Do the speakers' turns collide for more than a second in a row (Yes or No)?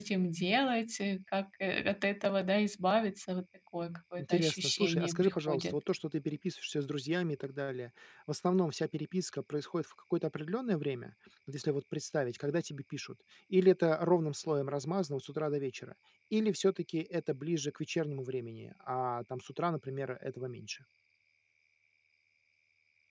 Yes